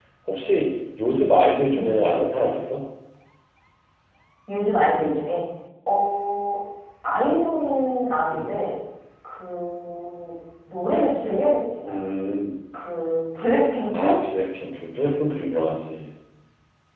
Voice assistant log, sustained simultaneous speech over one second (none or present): none